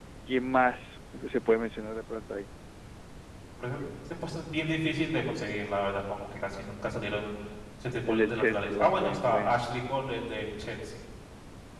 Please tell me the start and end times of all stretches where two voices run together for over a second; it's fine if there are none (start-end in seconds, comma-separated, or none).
8.1-9.6